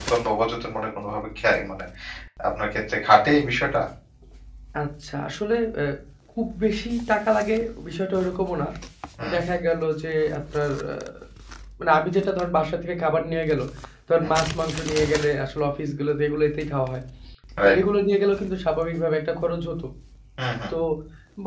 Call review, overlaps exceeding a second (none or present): none